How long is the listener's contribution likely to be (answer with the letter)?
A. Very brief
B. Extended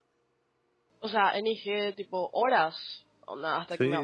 B